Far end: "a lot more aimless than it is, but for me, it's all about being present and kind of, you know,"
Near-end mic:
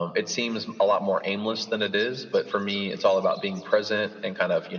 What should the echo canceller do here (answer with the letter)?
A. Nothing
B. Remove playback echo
B